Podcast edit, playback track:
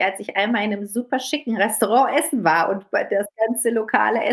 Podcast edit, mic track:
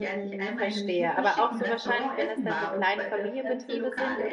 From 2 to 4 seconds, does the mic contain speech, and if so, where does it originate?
both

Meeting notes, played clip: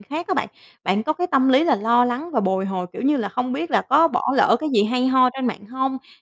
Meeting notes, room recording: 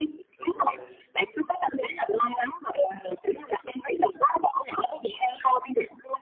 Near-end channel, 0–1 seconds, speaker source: both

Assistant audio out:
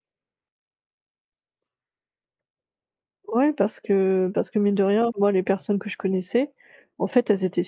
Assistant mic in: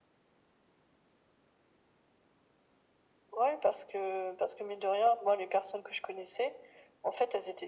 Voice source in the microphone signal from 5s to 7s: echo only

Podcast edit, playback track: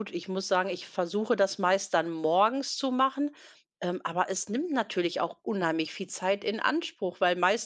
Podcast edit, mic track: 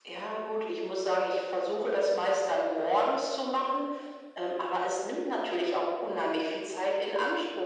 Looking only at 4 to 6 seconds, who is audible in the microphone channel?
echo only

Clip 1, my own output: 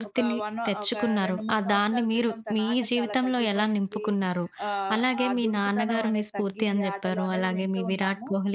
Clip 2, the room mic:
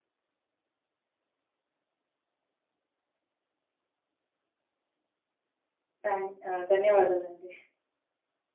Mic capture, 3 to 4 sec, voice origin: neither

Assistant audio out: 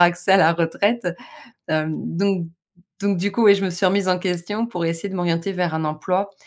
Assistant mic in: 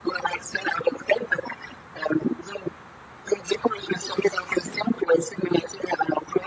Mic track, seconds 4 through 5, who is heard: echo only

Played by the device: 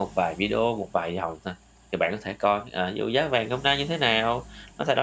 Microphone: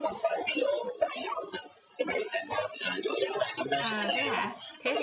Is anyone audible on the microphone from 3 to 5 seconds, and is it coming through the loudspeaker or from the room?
both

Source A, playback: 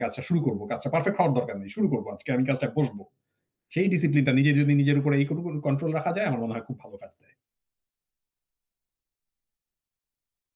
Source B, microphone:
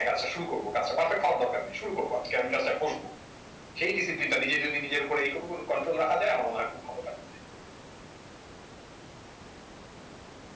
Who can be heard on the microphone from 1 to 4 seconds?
echo only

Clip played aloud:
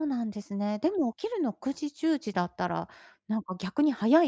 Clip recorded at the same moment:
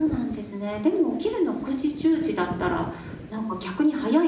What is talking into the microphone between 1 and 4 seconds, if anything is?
echo only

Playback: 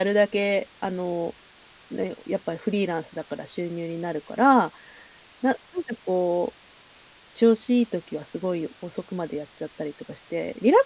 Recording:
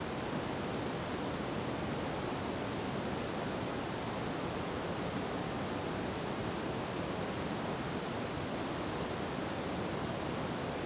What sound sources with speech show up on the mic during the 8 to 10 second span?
neither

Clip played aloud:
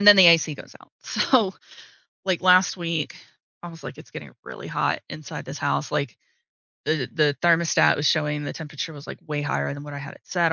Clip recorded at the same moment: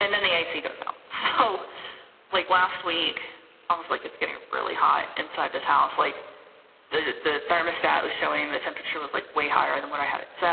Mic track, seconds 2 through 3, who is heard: echo only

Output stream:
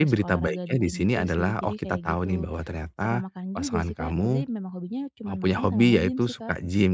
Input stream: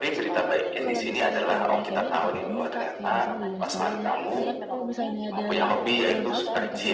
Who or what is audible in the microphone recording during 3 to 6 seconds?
both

